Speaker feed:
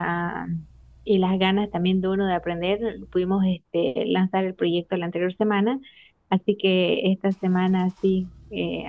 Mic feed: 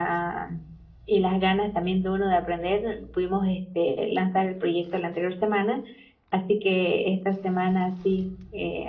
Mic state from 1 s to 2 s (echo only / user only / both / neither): echo only